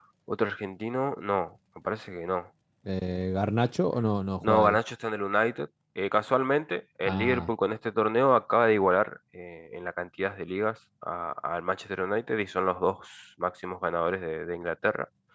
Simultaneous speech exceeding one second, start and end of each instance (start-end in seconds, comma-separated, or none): none